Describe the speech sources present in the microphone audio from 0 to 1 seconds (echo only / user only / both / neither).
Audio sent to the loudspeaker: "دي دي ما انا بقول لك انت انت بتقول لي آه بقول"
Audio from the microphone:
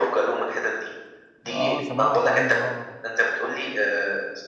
echo only